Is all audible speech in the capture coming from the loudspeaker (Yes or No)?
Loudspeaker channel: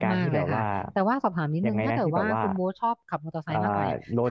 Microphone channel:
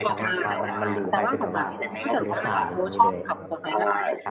No